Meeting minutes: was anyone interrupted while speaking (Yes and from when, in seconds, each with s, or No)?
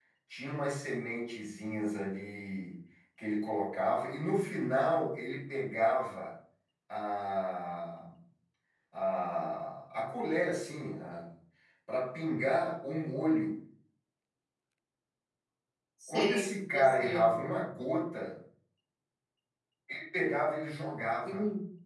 Yes, from 16.1 s